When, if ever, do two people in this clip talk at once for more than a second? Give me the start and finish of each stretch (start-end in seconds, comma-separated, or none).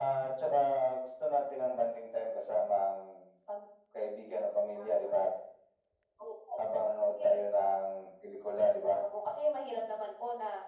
none